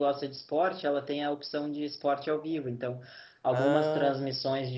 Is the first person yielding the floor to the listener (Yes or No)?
No